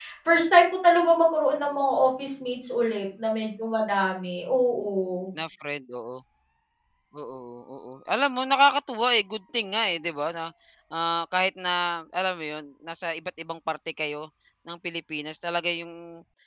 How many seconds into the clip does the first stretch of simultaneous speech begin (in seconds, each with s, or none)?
none